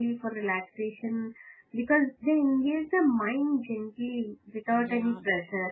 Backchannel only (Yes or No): Yes